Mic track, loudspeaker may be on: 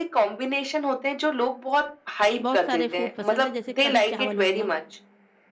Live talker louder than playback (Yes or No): No